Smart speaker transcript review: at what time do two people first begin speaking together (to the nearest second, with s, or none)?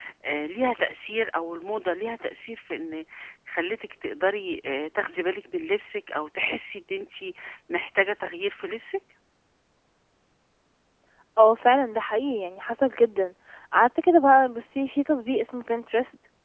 none